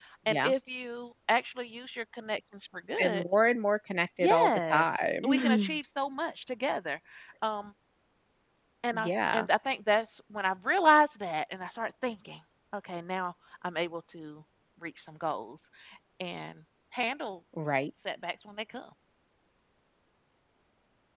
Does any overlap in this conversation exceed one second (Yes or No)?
Yes